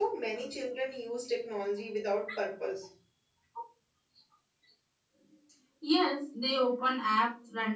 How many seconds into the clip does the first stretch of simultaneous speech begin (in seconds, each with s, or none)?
none